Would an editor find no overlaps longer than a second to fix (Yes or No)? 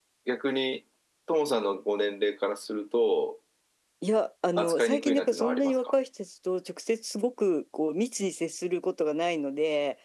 No